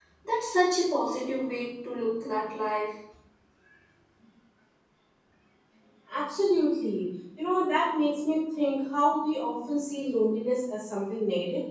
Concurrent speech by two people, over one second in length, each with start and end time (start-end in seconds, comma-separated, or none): none